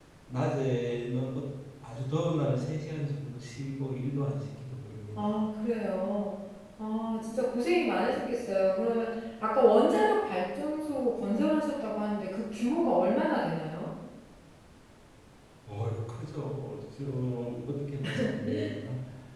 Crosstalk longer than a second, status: none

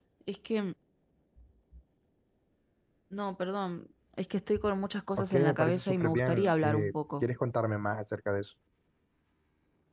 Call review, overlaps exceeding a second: present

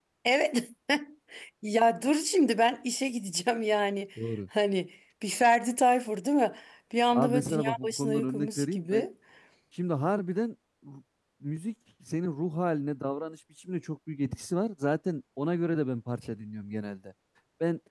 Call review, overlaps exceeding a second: present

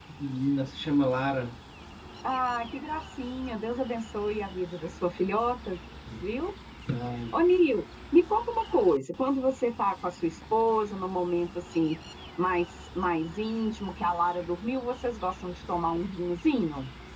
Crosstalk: none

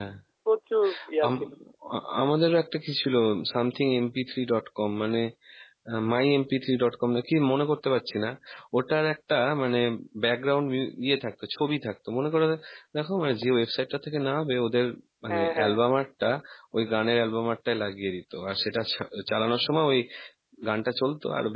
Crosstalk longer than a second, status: none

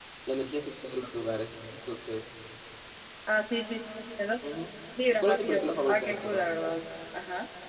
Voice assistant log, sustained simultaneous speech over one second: present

